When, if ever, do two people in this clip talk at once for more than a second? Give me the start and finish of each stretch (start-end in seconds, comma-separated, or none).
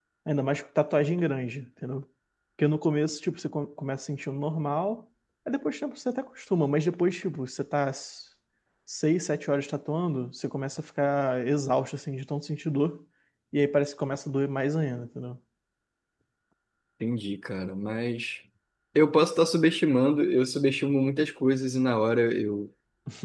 none